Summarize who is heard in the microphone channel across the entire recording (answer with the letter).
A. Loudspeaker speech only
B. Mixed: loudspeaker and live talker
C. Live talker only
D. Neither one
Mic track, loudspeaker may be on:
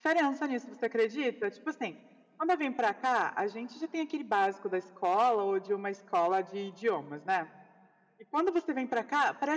C